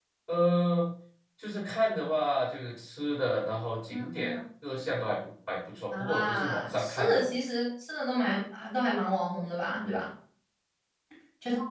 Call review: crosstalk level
present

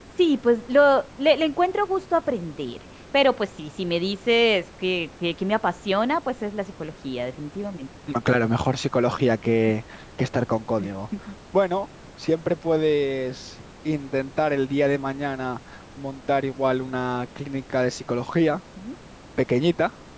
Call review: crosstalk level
none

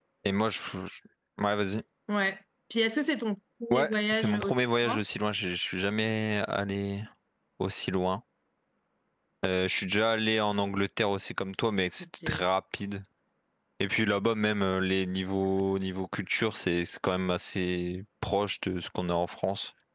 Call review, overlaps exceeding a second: present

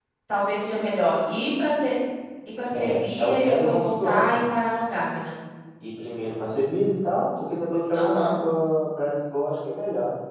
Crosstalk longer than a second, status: present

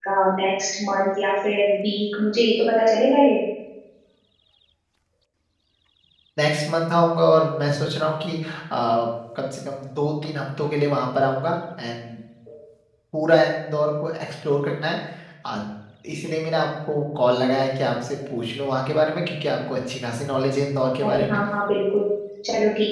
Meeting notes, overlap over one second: none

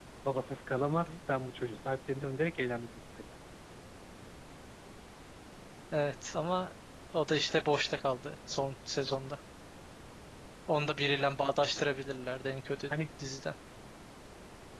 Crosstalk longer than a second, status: none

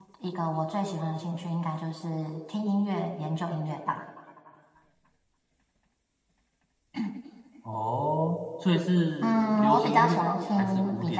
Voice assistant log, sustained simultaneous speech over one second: present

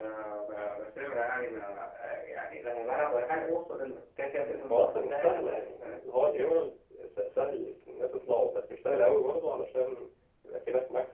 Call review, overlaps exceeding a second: present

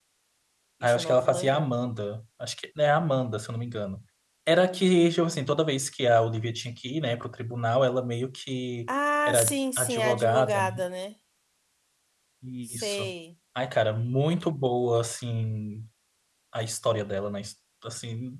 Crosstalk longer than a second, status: present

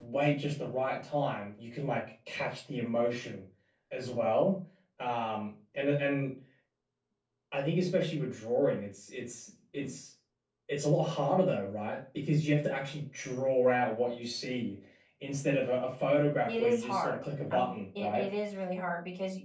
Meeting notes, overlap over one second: present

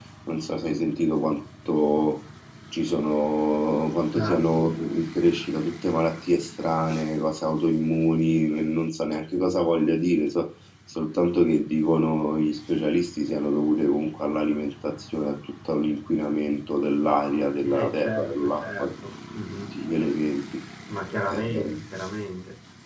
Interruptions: present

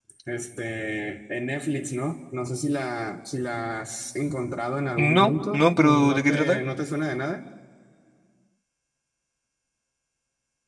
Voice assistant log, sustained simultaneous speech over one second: present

